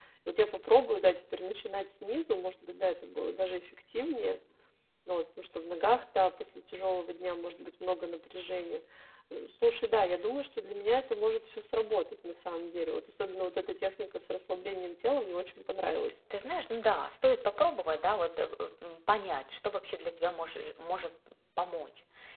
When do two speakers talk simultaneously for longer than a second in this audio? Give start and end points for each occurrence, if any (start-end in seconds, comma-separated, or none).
none